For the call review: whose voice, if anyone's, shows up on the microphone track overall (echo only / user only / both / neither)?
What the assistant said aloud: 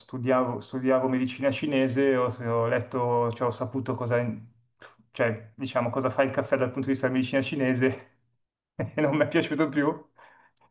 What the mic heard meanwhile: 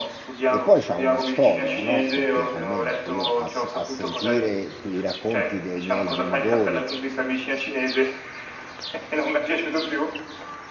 both